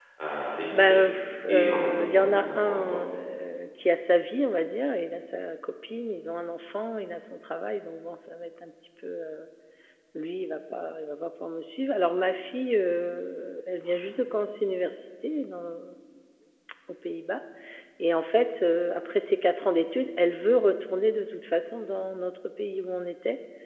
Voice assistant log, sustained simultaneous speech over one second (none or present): present